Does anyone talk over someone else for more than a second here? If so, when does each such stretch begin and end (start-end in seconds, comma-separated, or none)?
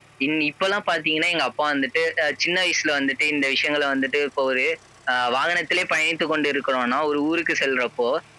none